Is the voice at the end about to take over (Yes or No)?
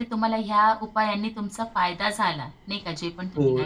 Yes